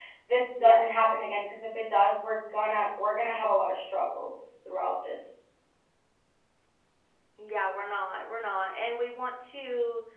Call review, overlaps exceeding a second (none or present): none